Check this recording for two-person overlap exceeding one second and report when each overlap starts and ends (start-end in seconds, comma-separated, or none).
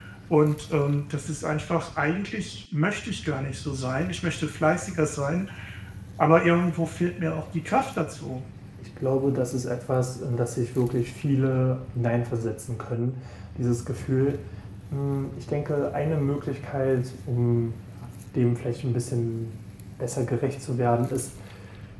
none